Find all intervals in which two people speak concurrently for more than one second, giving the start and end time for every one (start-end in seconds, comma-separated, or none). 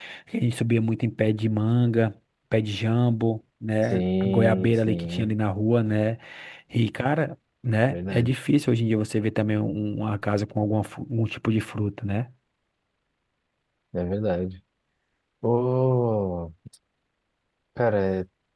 3.9-5.3